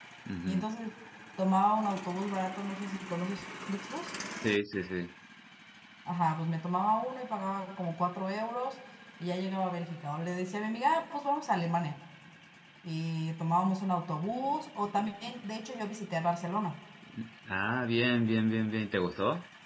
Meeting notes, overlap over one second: none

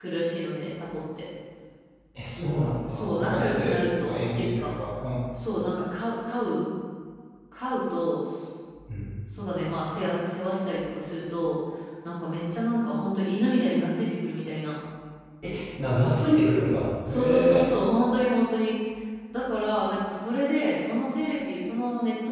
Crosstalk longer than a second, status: present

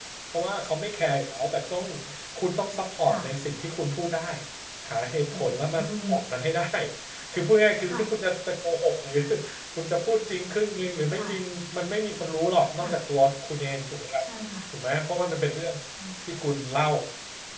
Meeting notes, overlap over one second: none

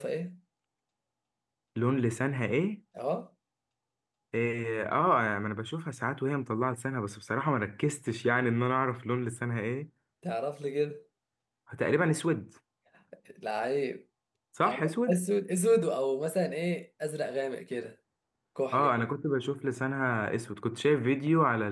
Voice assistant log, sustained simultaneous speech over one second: none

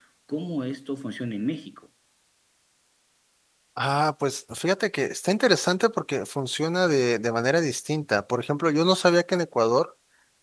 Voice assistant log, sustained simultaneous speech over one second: none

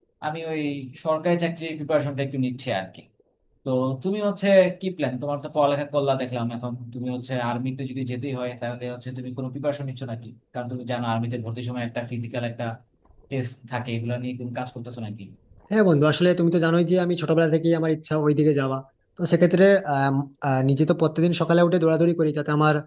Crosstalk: none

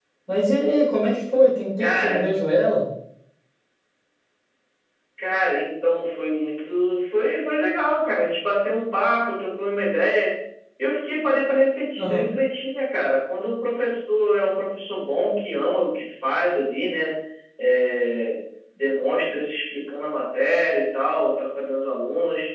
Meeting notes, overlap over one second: none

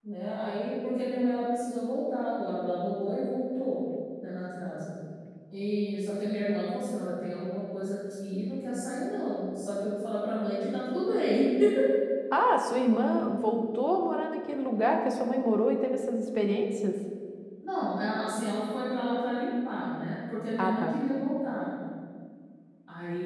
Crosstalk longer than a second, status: none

